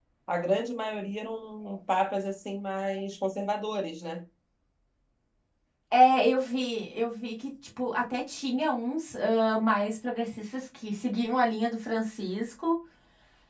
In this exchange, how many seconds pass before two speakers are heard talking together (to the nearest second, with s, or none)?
none